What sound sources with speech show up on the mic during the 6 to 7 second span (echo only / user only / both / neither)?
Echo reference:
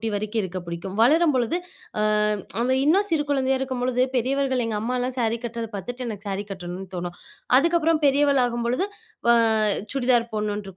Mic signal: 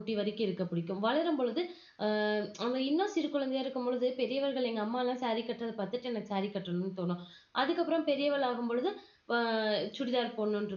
echo only